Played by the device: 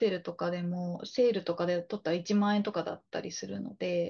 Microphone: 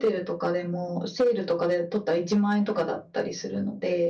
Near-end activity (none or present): none